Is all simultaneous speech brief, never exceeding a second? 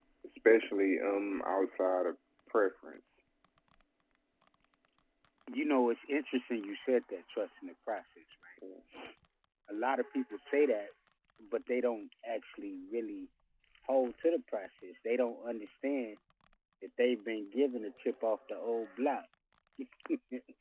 Yes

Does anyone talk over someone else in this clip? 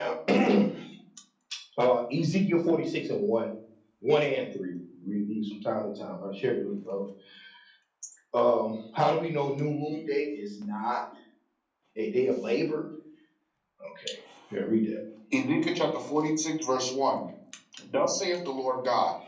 No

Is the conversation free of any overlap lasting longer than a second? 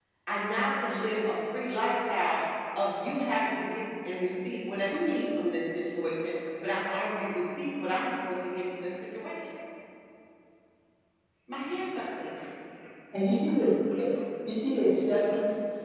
Yes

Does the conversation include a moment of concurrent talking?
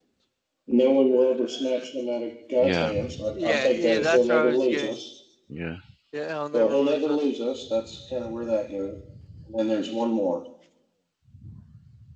Yes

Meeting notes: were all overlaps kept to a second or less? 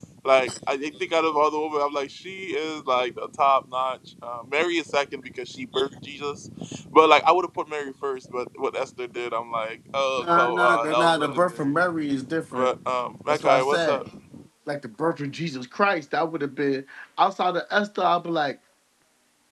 No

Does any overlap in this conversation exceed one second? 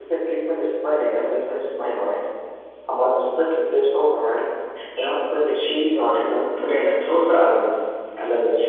No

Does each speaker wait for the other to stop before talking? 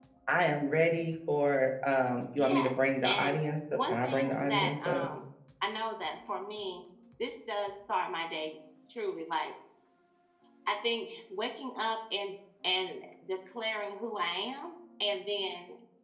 No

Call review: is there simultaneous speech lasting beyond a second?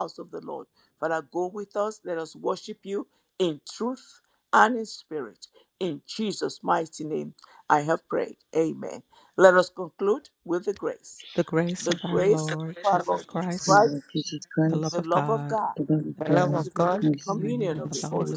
Yes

